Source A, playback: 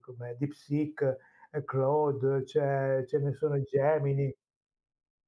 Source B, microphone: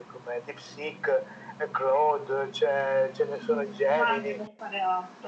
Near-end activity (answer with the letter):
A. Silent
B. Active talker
B